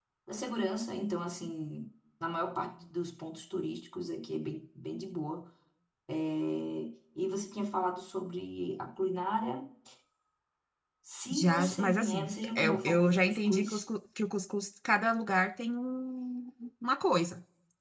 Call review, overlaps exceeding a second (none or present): present